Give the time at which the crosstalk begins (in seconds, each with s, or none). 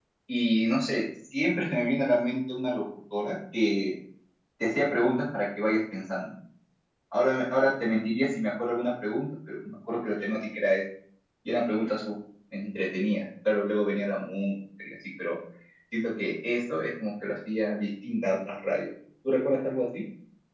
none